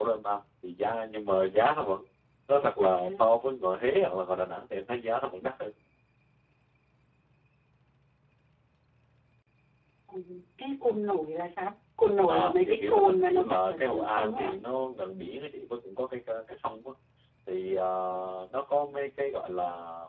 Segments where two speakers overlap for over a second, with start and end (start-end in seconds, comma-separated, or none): 12.3-14.5